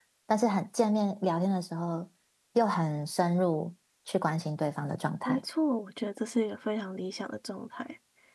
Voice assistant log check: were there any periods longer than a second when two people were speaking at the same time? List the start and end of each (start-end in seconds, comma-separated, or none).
none